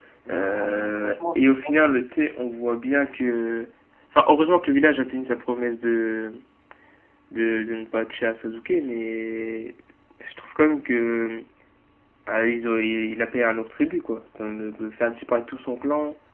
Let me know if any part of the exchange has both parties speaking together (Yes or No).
Yes